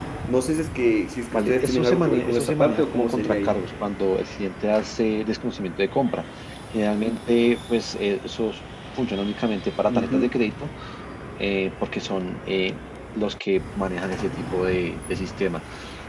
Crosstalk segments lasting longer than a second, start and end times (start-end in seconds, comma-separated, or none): 1.3-3.5